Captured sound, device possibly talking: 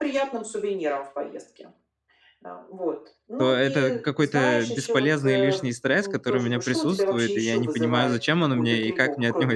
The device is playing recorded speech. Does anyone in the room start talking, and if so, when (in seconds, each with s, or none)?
3.4 s